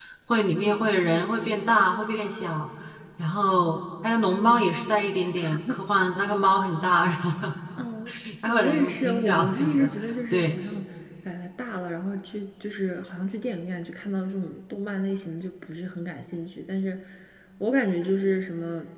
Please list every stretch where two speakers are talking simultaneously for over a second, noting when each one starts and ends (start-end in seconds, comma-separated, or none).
8.4-9.9